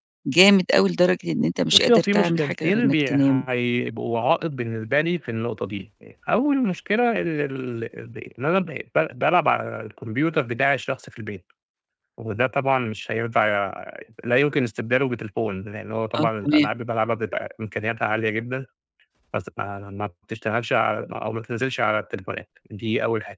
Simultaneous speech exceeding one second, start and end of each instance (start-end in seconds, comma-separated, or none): 1.7-3.4